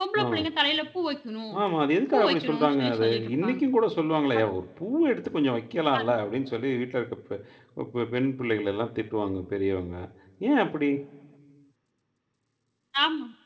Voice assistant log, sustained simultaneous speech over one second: present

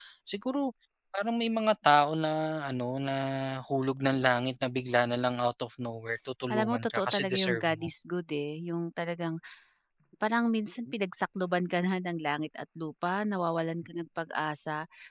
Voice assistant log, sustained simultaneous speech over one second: present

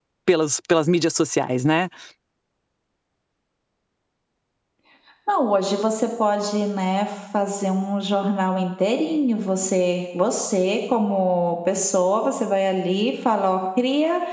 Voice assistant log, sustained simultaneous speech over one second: none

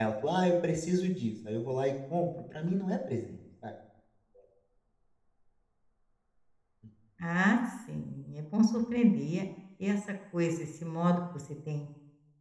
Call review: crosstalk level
none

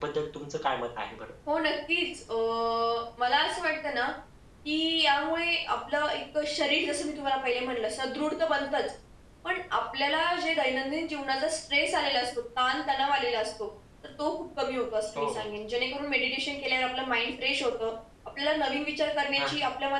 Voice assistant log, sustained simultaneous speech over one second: none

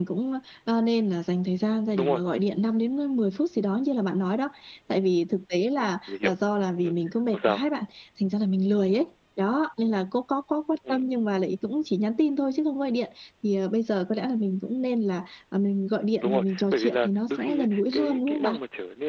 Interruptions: present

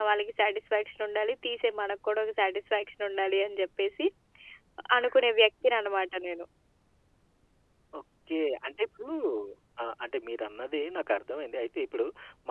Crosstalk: none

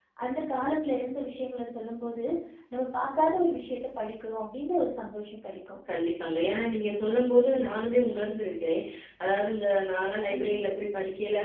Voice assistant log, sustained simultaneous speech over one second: none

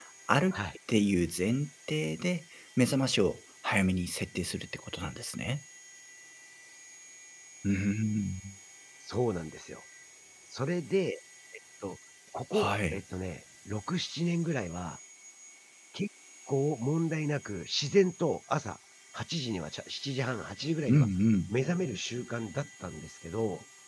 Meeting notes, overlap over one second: none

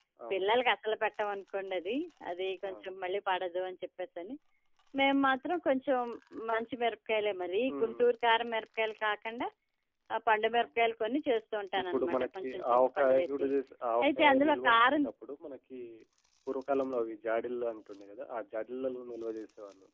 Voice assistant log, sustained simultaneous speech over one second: present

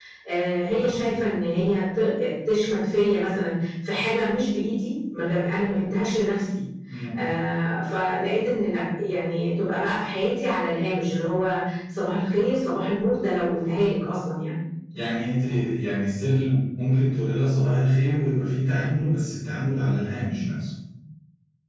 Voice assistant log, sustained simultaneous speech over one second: none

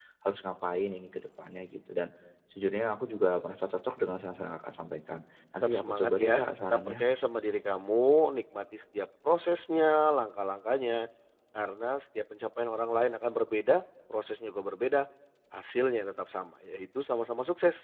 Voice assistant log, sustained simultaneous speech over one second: present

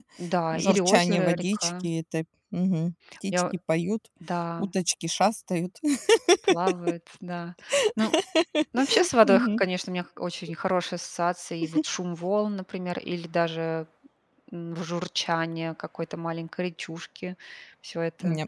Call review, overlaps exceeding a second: present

